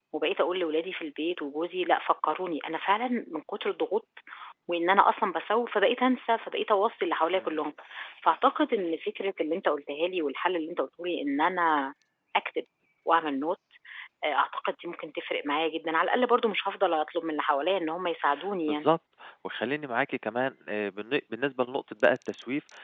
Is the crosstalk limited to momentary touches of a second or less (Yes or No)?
Yes